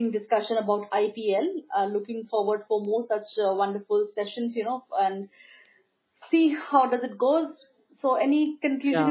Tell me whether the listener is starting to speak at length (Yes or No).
Yes